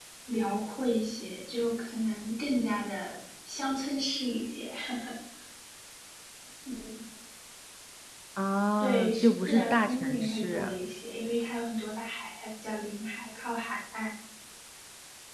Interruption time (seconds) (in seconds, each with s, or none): 8.8 s